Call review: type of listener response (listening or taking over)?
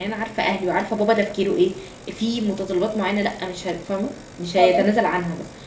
listening